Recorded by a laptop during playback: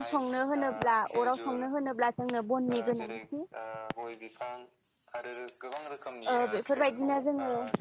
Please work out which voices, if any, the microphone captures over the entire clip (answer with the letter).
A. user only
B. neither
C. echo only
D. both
D